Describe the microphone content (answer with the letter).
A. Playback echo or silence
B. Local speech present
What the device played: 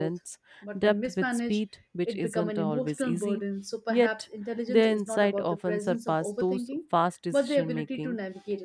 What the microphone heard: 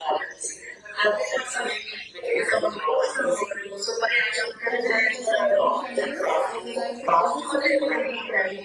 B